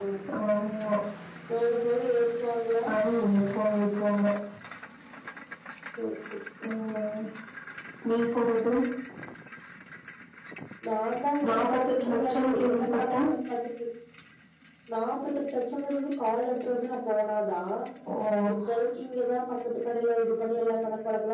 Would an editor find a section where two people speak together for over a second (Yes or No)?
Yes